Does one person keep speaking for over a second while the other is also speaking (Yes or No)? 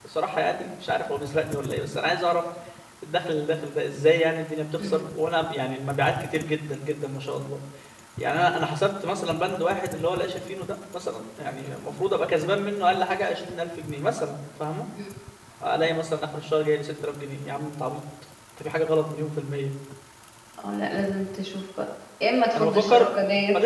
No